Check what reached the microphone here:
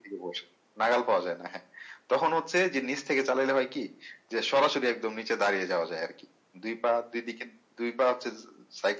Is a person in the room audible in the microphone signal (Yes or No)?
No